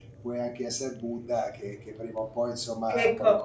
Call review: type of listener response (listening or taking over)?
taking over